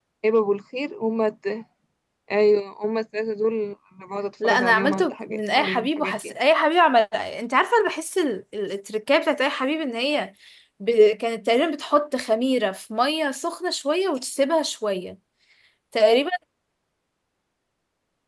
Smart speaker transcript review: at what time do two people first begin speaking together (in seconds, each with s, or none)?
4.4 s